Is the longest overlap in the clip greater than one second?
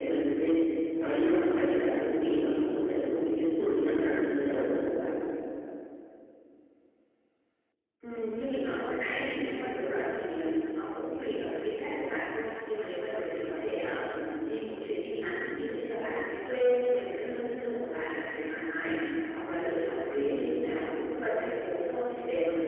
No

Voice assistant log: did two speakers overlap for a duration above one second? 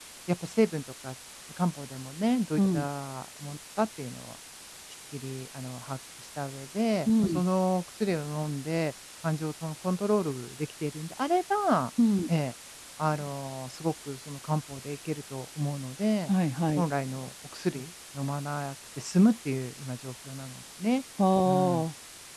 No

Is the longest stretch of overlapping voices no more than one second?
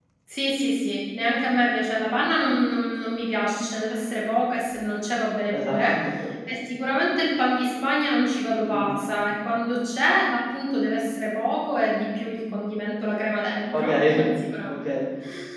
Yes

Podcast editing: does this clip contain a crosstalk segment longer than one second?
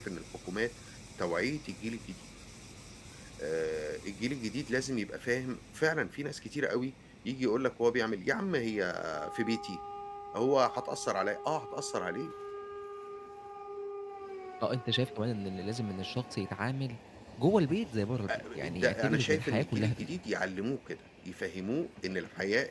Yes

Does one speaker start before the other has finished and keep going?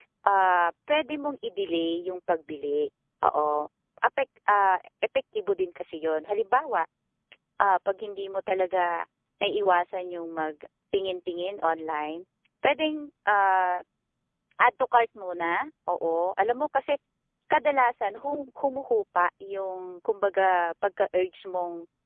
No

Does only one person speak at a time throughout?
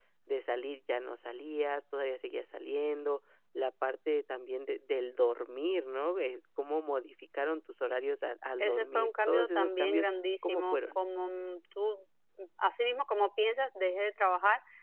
No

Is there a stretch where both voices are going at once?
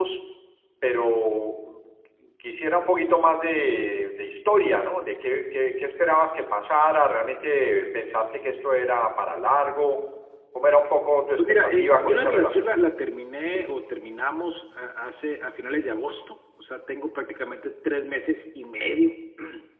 Yes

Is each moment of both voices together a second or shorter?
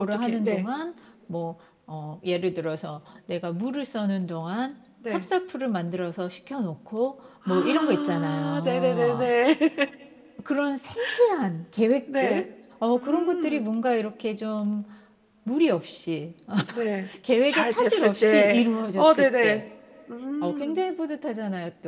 No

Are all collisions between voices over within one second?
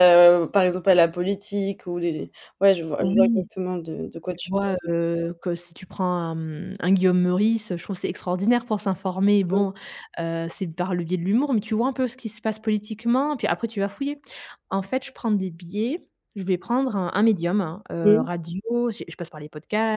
Yes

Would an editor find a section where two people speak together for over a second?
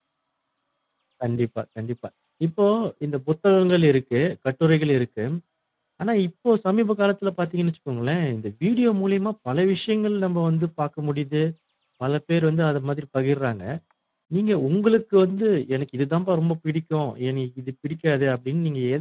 No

